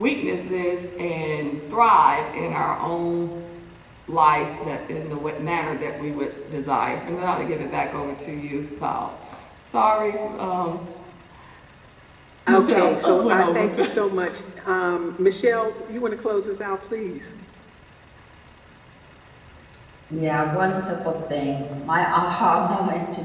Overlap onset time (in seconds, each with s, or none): 12.5 s